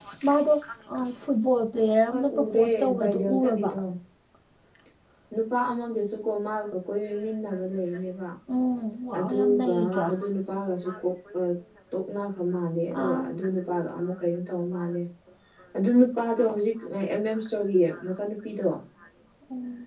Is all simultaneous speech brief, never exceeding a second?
No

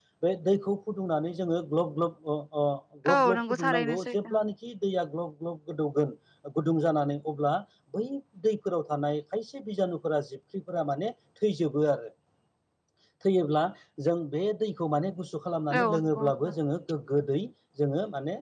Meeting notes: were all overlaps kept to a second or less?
No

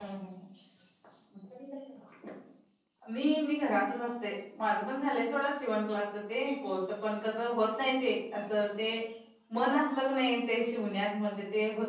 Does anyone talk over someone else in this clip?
No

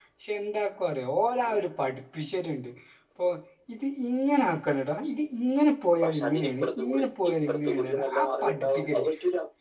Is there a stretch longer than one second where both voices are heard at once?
Yes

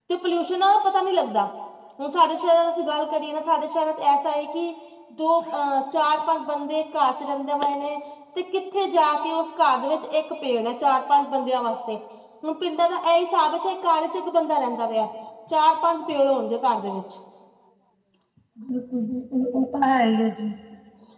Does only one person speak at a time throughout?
Yes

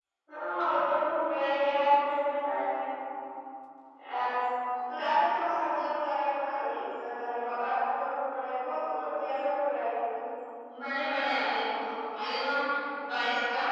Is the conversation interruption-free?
Yes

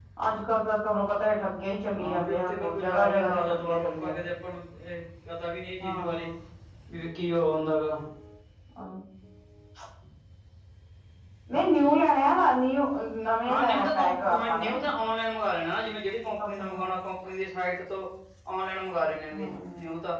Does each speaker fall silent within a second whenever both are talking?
No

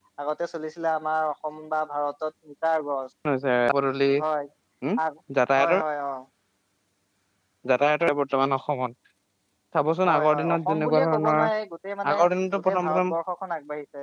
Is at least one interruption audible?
Yes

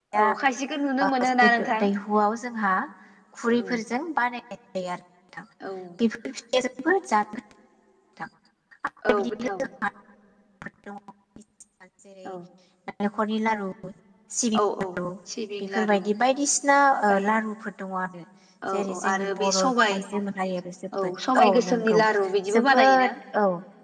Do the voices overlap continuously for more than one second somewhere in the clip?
Yes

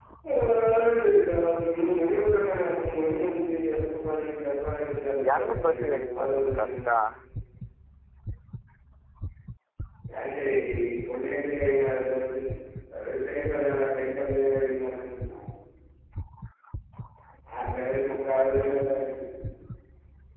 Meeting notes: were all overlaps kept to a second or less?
No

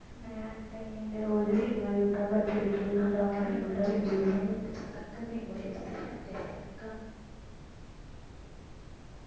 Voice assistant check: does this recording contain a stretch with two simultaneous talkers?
Yes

